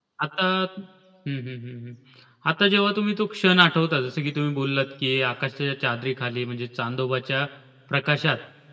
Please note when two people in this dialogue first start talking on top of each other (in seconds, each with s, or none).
none